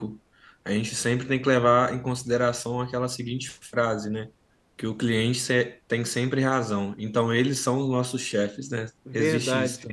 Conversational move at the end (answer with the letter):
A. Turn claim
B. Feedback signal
A